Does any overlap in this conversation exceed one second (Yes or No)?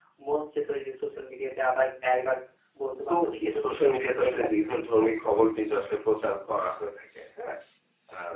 Yes